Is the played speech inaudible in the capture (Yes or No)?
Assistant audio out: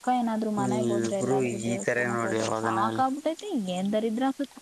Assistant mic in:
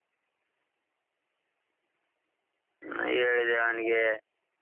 Yes